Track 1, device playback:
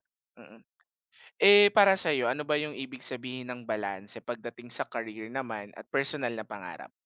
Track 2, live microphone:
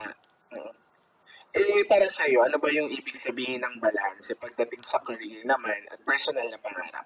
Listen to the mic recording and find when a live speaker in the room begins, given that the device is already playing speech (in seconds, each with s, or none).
none